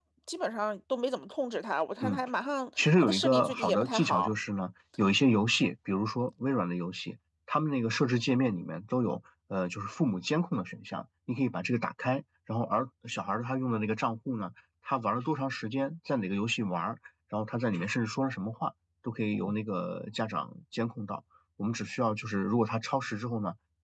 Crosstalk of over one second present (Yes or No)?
Yes